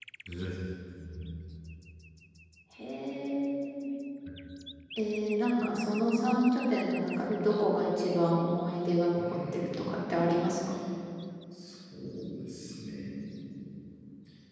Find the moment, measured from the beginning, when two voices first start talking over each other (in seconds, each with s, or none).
9.2 s